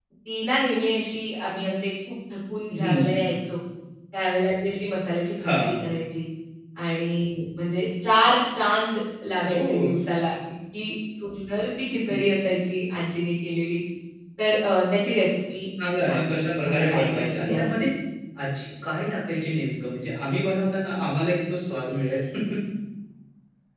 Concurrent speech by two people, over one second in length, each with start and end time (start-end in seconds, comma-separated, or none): 16.1-17.6